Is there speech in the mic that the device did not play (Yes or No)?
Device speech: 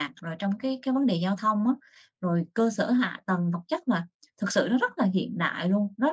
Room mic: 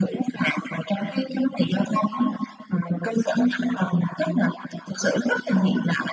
No